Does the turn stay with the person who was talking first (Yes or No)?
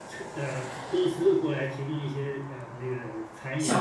No